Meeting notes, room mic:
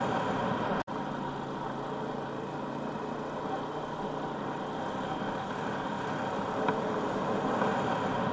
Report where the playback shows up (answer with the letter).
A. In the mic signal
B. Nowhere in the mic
B